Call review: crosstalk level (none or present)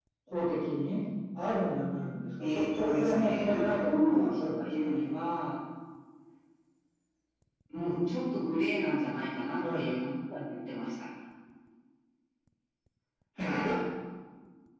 present